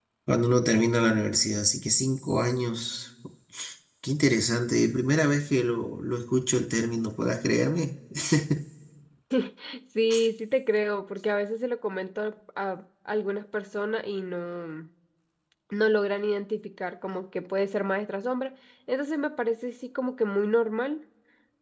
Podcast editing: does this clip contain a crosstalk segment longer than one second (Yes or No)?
No